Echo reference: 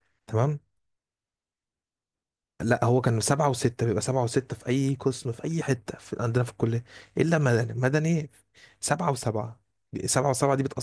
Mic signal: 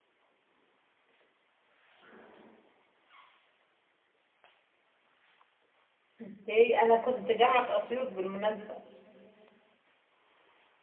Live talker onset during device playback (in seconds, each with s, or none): 6.2 s